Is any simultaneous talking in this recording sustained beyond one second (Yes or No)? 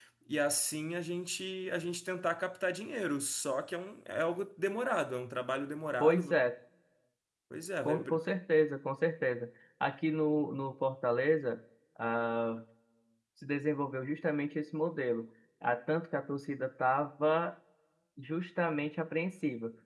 No